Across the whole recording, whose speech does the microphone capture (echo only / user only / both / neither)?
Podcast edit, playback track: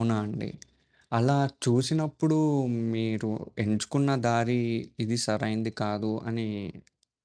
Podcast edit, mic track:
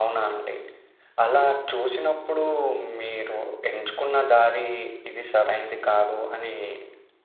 echo only